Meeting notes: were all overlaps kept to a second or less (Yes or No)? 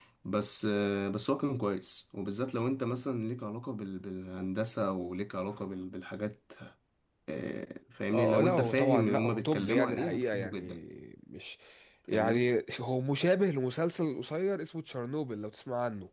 No